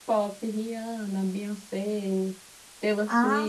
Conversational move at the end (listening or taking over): listening